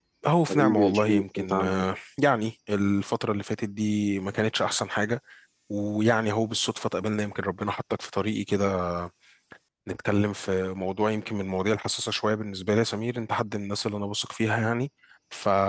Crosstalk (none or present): present